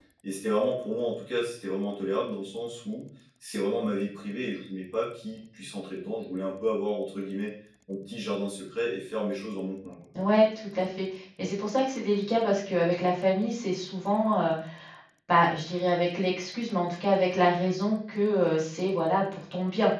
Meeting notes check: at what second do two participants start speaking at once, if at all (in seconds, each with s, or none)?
none